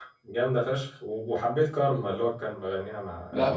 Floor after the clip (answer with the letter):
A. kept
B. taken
B